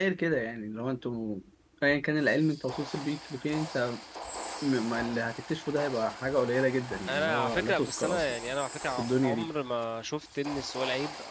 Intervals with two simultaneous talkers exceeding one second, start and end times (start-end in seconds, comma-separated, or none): 7.1-8.4